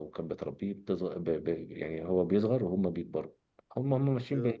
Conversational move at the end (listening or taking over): listening